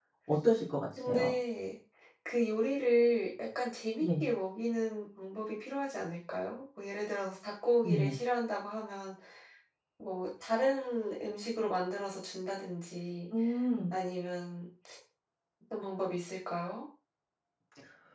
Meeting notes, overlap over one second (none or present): none